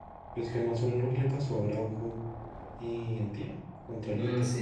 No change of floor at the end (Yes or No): No